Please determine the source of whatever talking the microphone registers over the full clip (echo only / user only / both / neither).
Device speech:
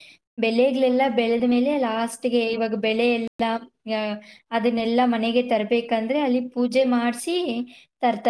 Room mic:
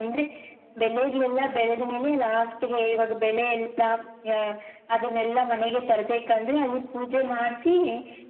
echo only